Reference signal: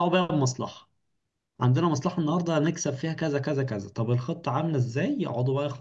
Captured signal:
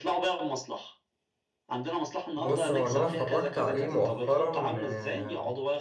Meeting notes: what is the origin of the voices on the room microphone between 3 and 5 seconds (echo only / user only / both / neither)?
both